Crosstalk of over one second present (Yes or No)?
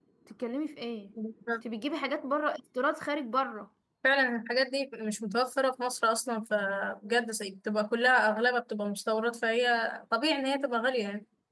No